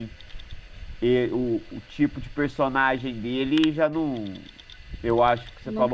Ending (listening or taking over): listening